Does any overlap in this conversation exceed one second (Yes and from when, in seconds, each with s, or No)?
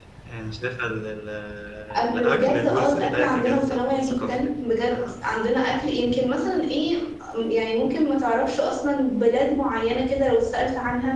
Yes, from 2.1 s